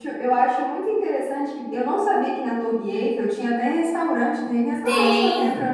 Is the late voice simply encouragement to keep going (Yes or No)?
No